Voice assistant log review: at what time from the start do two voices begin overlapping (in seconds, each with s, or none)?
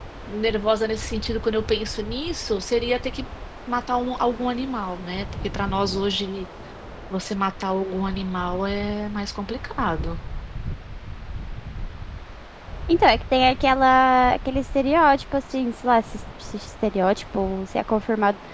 none